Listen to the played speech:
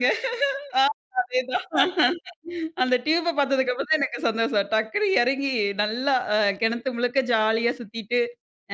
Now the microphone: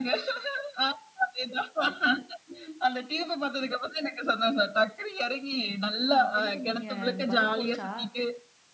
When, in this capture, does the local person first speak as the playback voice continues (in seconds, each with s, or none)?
6.1 s